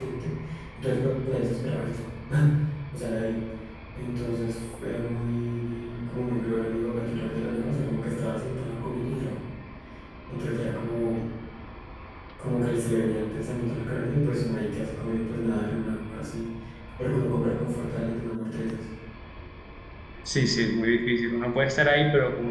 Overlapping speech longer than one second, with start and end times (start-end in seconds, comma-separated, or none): none